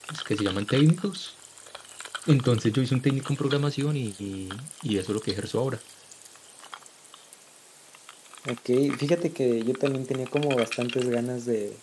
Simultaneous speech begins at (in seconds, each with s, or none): none